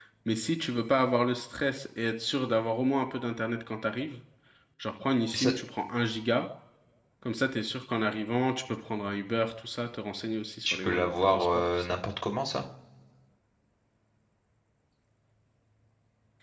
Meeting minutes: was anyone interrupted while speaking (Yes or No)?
Yes